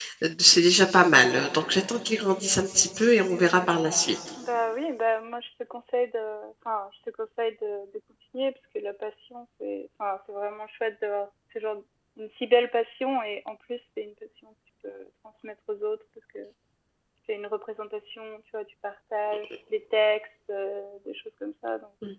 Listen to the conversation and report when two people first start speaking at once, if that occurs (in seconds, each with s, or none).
none